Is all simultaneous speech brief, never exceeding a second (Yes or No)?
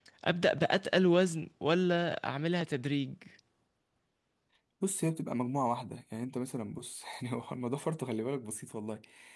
Yes